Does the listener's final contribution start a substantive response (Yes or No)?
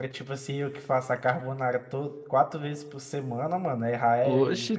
Yes